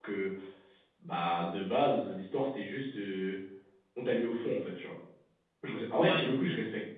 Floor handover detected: No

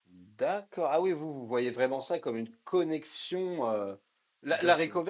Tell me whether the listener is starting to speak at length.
No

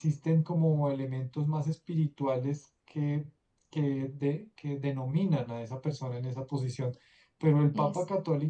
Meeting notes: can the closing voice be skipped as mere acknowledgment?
Yes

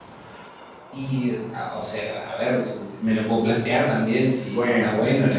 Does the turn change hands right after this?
No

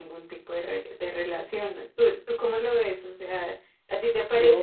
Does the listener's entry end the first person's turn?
Yes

